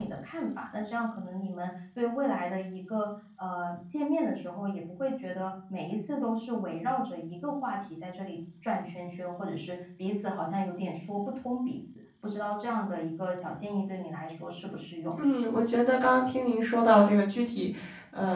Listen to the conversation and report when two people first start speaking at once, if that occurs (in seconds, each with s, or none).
none